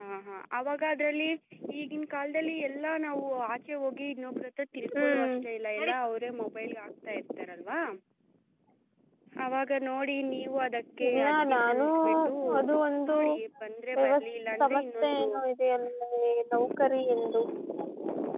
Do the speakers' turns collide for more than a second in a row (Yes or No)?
Yes